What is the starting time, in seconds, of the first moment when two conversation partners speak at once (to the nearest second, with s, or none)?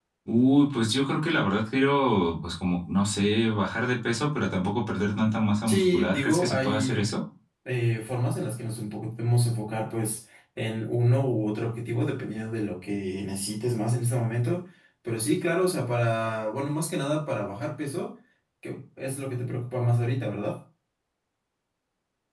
6 s